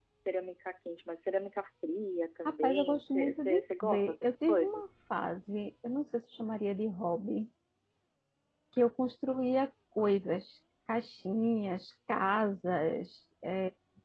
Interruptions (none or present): present